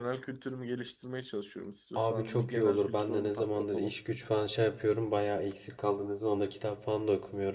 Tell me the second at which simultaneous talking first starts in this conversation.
2 s

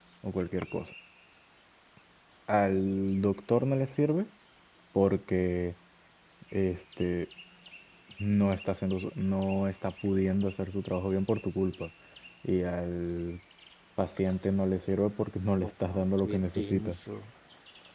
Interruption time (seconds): 16 s

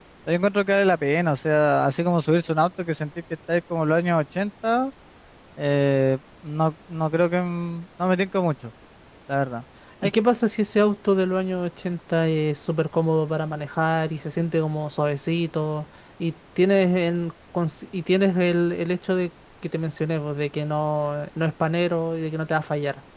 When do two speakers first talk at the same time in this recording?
none

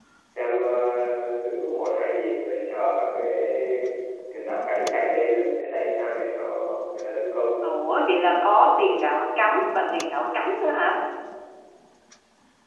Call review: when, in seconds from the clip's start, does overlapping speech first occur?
none

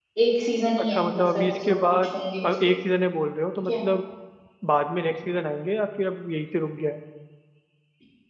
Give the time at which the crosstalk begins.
1 s

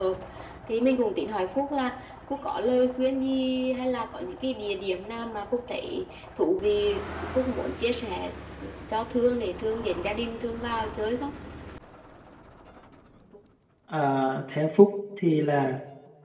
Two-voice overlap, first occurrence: none

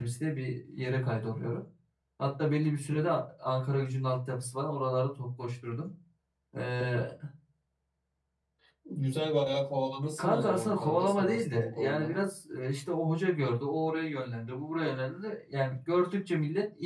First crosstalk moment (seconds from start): 10 s

